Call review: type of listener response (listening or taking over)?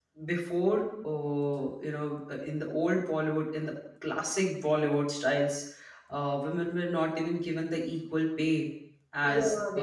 taking over